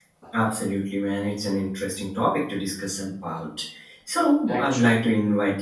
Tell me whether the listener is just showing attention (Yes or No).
Yes